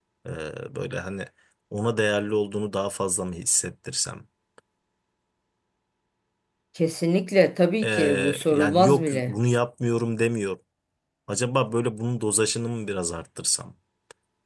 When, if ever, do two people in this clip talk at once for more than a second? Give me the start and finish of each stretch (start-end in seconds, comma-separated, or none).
7.8-9.4